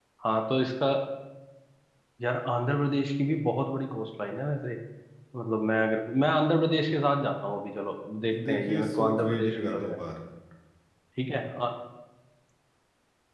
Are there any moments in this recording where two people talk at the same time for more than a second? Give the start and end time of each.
8.5-10.0

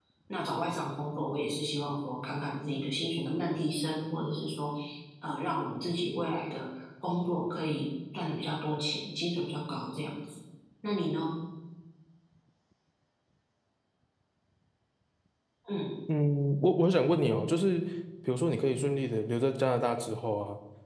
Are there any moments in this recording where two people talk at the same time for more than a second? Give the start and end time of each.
none

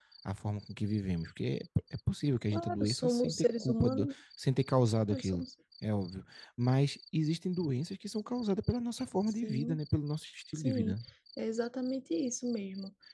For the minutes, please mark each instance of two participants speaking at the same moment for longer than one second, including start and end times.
2.5-4.1

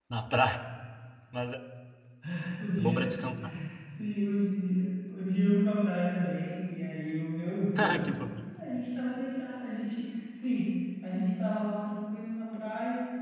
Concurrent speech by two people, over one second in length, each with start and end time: none

